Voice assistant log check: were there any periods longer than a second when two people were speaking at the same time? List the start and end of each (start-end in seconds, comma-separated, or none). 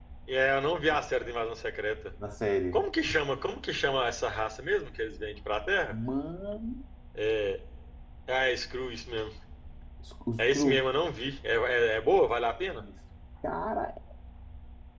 none